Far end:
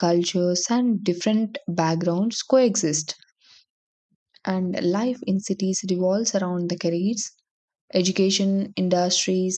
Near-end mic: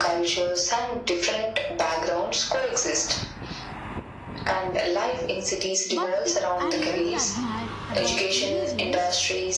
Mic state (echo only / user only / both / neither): both